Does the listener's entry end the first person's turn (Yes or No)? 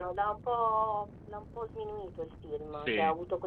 No